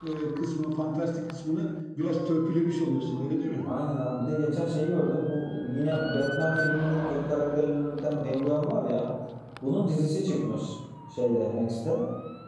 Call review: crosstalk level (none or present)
none